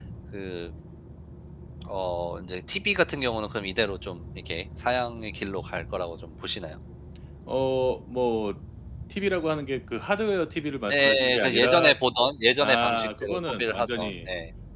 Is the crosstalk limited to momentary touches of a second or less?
No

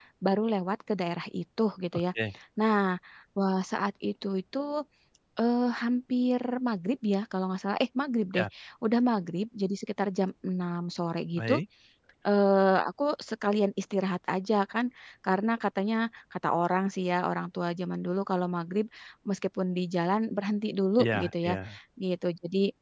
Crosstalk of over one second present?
No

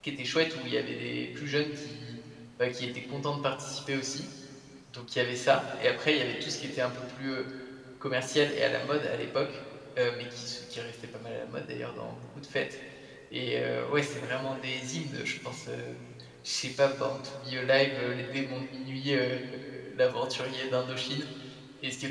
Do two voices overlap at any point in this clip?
No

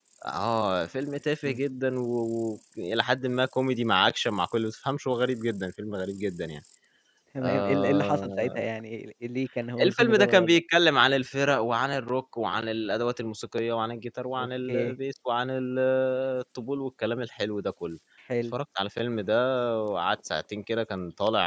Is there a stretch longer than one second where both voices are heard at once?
Yes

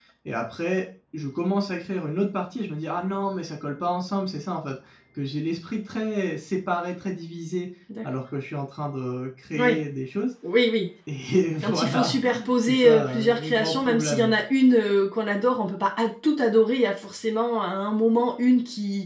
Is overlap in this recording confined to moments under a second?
No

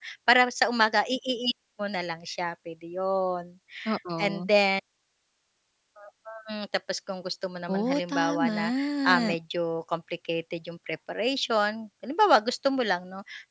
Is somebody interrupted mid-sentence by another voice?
Yes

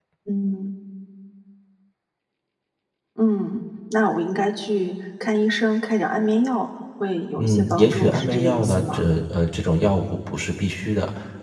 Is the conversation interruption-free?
No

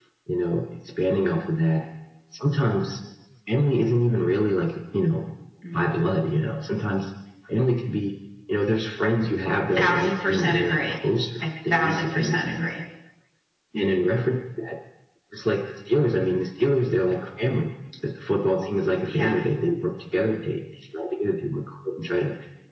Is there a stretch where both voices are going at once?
Yes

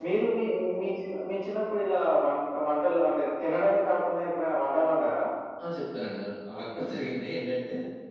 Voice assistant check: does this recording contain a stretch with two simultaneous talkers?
No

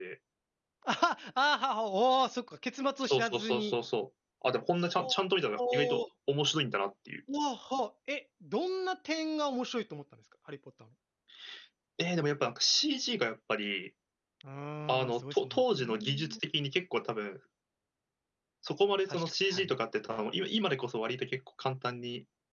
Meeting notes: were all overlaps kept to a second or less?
No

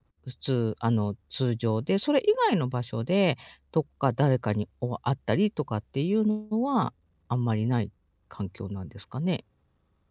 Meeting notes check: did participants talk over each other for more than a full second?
No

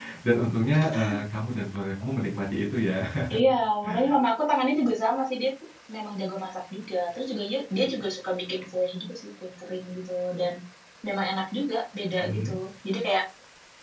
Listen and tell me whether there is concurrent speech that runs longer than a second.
No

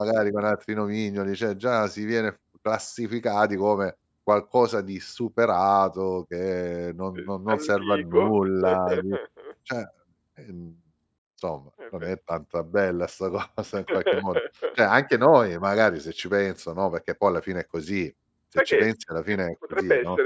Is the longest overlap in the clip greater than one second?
Yes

